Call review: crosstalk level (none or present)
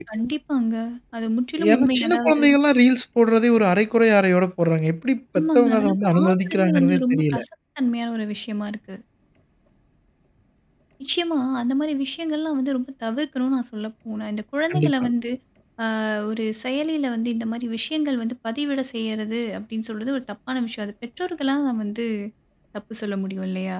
present